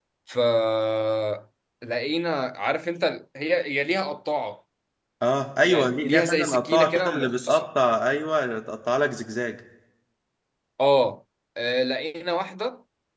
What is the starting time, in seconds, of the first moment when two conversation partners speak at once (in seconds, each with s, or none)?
5.6 s